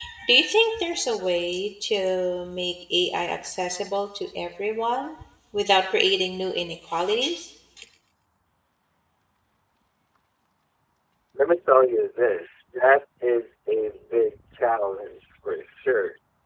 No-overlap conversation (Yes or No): Yes